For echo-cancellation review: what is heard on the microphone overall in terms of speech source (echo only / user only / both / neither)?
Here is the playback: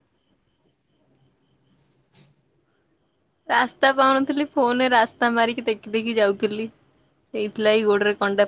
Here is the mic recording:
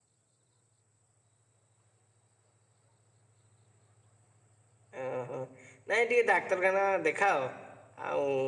user only